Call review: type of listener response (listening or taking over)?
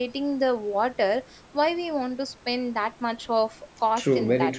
taking over